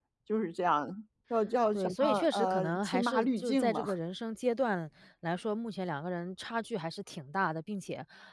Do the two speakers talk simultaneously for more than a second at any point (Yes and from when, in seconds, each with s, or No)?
Yes, from 1.7 s